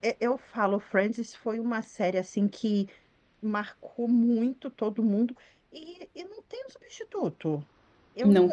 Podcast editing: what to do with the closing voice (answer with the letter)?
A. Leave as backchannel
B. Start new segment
A